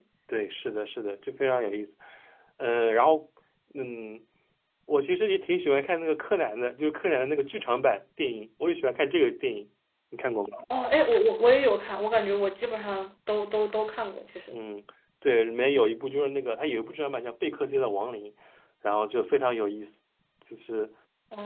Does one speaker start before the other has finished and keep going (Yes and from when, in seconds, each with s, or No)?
No